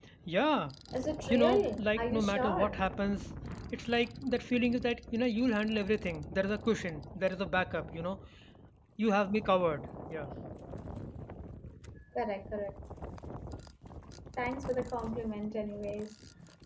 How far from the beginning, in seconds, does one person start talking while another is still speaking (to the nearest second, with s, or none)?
1 s